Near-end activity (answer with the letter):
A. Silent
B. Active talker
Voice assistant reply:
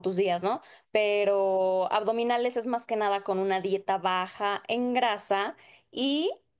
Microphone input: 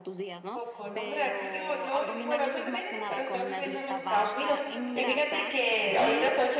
B